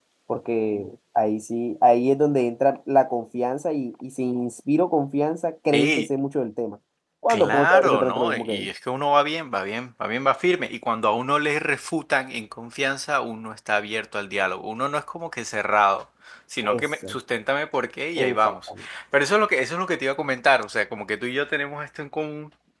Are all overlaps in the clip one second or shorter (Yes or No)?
No